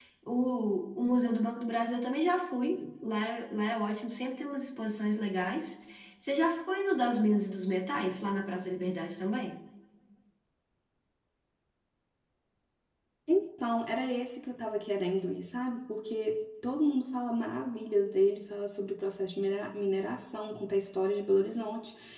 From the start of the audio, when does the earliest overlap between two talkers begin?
none

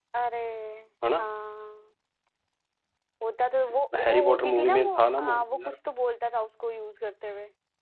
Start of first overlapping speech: 4 s

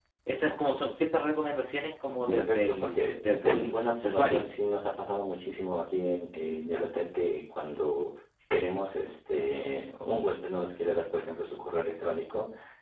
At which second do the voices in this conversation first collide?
2 s

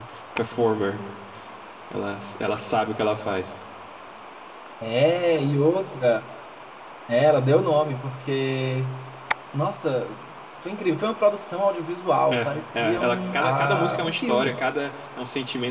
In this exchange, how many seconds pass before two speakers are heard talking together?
12 s

